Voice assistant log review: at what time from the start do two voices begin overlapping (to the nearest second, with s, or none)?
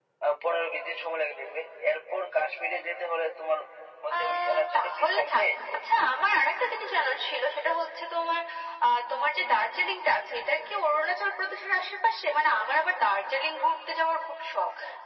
4 s